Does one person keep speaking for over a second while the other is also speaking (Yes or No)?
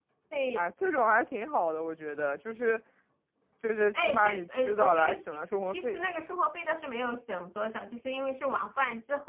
Yes